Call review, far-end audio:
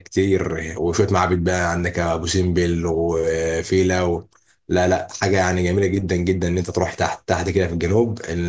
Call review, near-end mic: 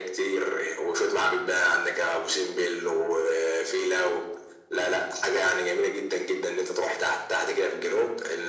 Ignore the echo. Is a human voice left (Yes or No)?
No